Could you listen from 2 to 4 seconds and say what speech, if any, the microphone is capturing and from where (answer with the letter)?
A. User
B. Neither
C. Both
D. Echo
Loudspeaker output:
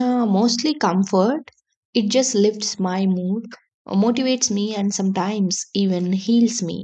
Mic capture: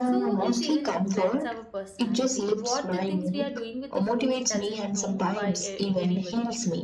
C